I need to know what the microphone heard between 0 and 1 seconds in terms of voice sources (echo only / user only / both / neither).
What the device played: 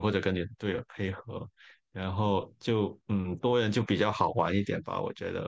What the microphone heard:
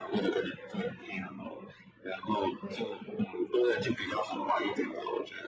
echo only